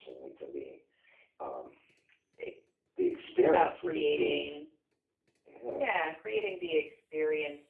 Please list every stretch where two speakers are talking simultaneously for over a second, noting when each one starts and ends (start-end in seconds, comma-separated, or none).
3.3-4.5